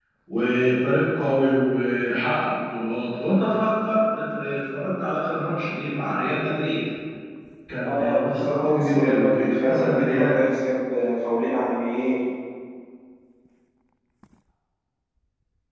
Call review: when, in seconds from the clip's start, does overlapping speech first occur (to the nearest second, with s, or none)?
8 s